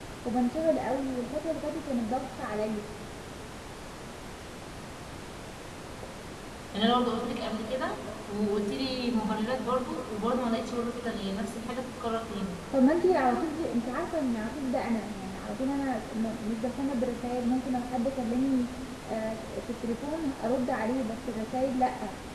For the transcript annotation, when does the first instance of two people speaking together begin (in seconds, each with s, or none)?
none